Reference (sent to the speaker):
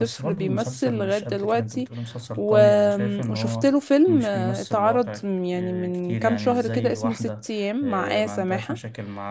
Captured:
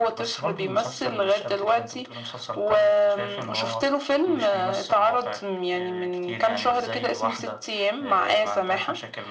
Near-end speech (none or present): none